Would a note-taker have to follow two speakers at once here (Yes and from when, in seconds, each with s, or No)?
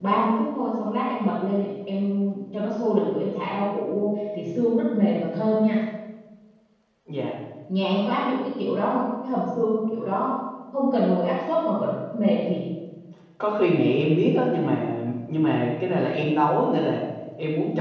No